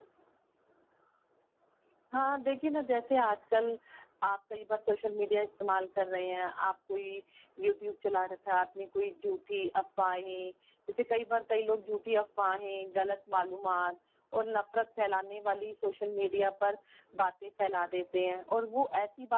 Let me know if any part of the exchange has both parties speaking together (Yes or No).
No